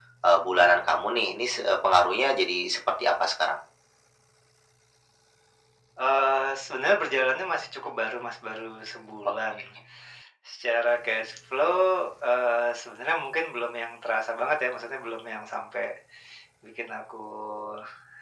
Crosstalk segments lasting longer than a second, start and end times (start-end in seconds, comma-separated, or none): none